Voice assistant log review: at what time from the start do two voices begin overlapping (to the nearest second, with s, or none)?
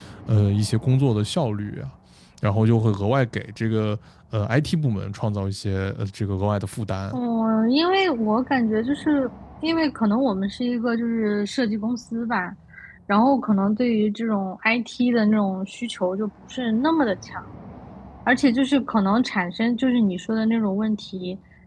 none